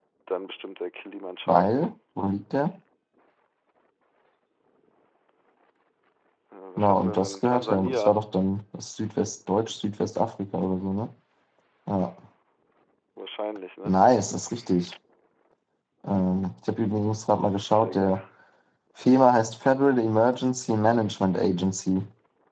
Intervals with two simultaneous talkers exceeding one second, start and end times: 6.8-8.1

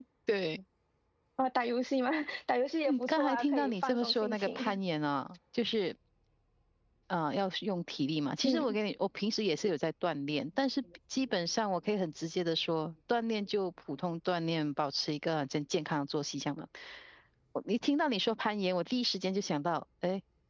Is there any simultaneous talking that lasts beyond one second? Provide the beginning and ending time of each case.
2.9-4.8

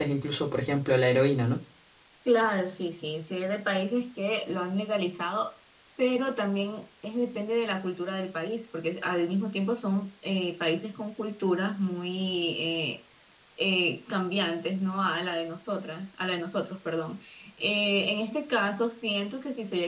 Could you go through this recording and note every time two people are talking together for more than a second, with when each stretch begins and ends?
none

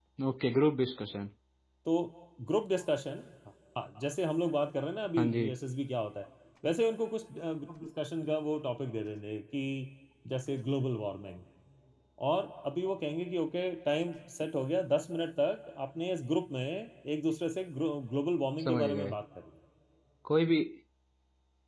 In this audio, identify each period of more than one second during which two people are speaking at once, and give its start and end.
none

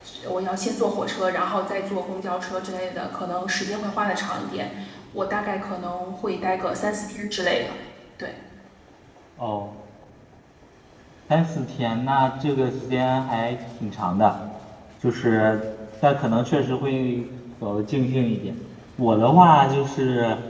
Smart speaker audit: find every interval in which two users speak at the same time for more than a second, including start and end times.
none

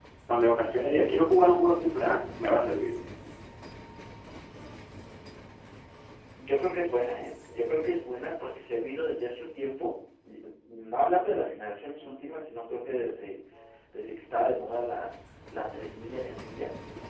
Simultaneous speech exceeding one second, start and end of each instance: none

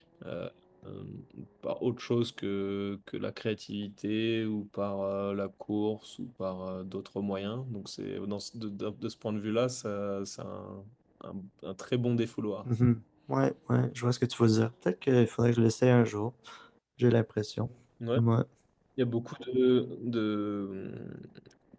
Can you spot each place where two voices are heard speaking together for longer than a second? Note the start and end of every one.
none

